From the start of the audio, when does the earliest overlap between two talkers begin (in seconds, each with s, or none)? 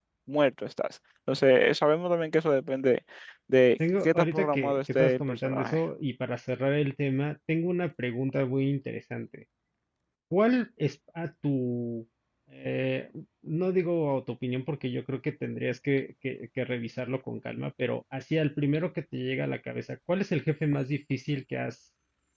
4.0 s